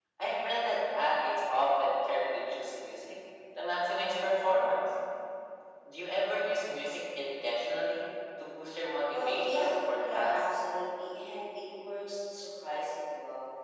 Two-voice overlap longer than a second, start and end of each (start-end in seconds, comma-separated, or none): 9.1-10.3